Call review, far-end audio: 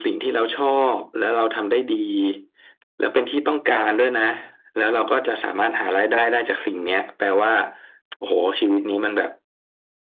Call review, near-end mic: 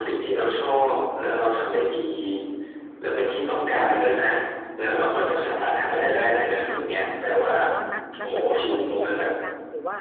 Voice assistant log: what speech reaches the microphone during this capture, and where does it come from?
both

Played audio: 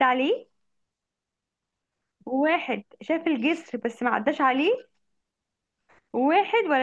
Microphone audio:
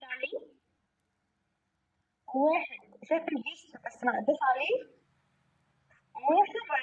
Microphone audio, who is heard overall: echo only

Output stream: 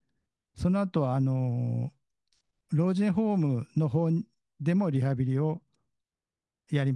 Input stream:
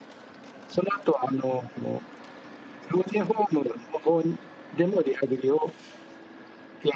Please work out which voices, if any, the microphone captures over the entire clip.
echo only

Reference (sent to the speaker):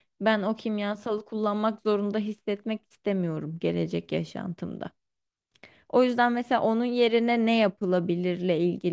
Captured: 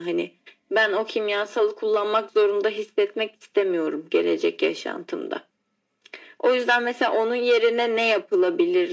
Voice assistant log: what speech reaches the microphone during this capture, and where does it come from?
echo only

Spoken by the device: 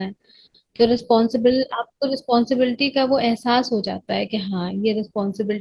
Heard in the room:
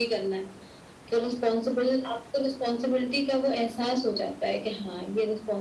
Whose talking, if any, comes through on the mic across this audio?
echo only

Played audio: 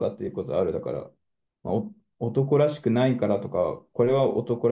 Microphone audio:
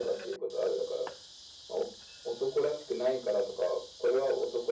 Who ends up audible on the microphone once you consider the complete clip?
echo only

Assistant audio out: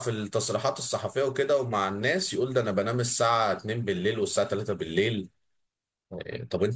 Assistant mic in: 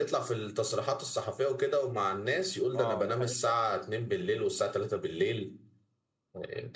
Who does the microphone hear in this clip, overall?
both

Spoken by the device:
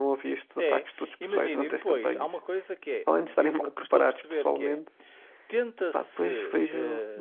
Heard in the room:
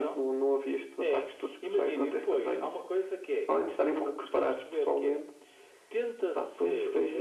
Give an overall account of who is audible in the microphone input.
echo only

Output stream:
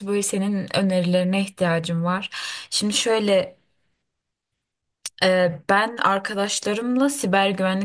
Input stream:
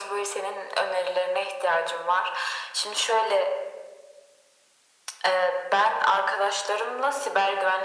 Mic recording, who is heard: echo only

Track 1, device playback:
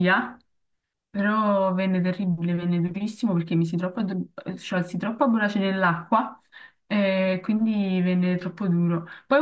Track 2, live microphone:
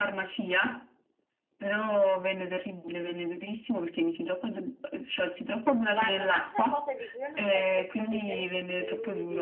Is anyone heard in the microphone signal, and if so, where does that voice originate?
both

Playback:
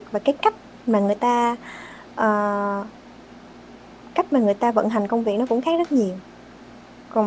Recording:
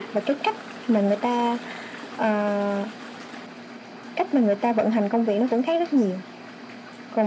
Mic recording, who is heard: echo only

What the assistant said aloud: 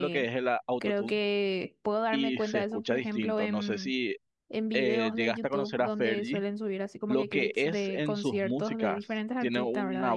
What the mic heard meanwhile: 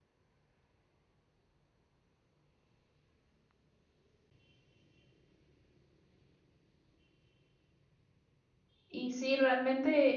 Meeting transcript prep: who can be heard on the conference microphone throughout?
user only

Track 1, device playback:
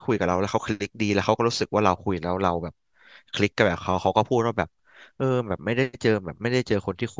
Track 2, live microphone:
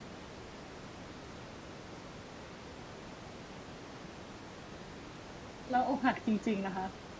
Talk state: user only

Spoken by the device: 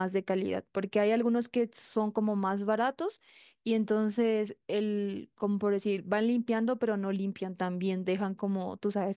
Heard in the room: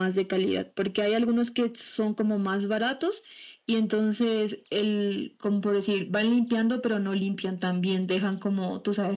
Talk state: echo only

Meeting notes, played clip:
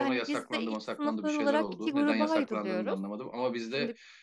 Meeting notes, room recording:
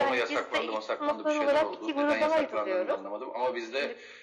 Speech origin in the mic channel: echo only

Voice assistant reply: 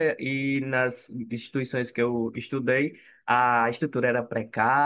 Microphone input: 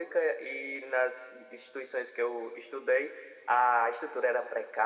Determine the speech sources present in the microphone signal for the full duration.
echo only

